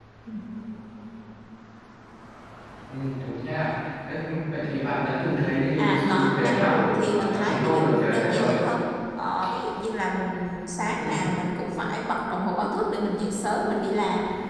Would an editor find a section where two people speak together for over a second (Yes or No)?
Yes